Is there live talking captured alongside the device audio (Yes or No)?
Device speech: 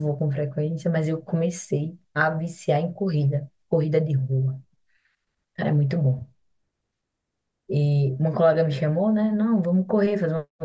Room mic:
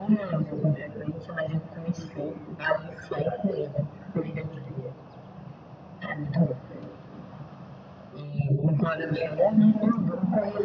No